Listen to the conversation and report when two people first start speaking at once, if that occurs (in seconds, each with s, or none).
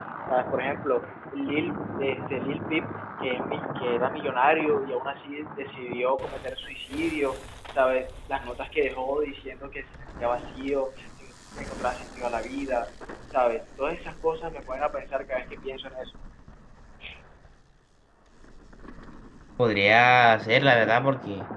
none